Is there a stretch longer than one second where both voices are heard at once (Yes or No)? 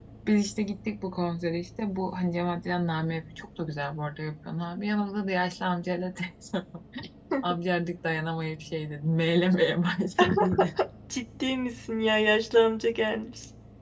No